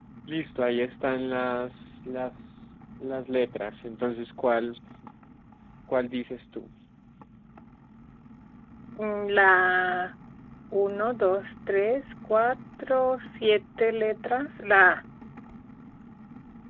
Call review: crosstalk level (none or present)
none